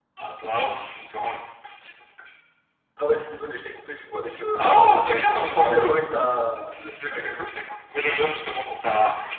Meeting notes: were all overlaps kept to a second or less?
No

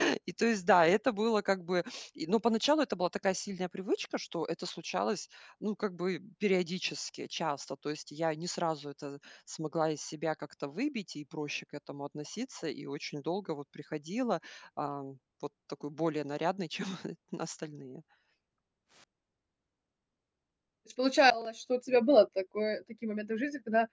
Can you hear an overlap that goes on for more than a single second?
No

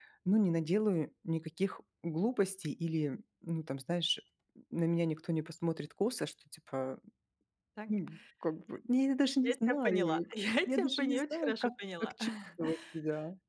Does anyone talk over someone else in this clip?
Yes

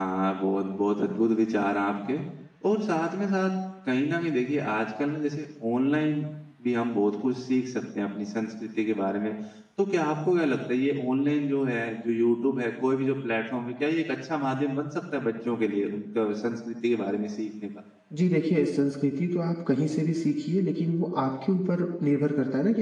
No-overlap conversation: Yes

